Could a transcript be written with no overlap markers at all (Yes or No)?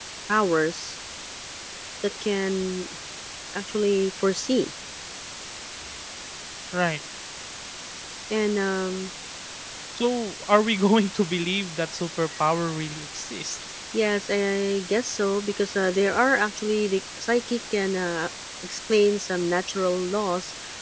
Yes